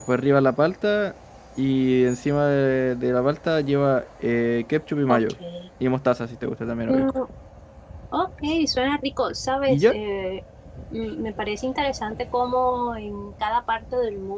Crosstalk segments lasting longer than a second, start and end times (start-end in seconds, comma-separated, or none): none